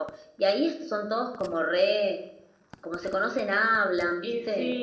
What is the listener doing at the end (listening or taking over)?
taking over